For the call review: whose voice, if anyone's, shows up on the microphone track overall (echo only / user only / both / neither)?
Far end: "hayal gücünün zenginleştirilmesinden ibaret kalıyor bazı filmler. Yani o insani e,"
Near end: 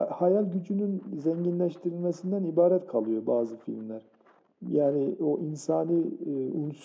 echo only